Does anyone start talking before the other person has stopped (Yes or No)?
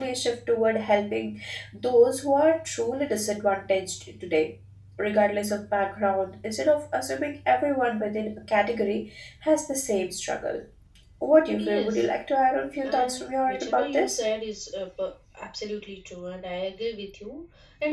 Yes